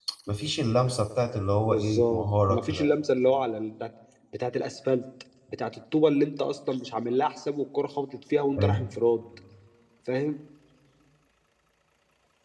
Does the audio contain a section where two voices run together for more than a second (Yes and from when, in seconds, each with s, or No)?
Yes, from 1.6 s